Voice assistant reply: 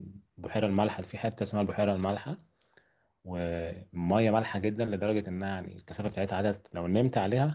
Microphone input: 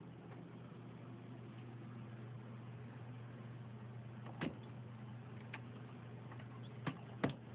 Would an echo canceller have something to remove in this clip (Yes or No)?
No